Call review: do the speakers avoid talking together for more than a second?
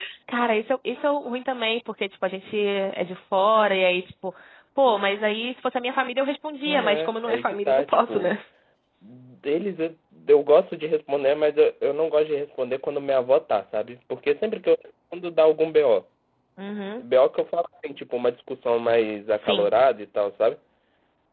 No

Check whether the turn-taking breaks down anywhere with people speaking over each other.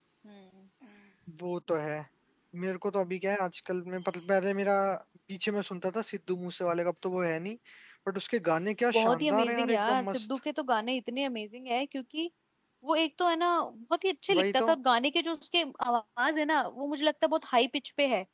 Yes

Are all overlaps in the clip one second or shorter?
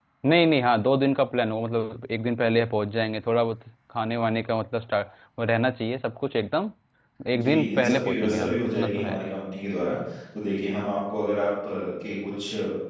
No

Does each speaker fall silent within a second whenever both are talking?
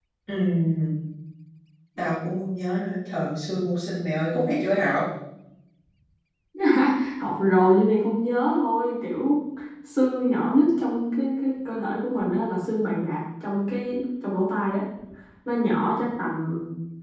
Yes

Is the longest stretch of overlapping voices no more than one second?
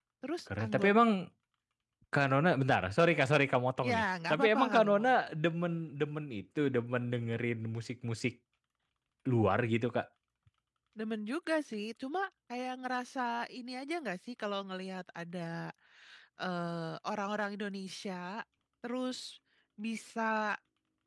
No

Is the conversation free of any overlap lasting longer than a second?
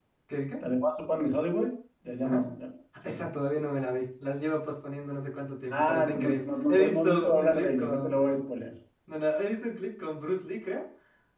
No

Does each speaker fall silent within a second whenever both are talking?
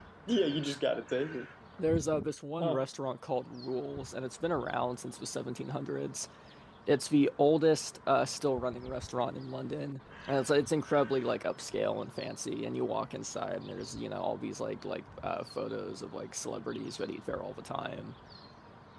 Yes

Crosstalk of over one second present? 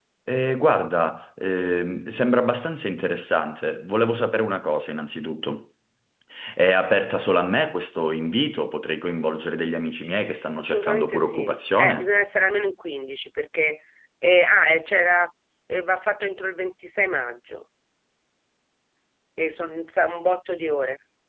Yes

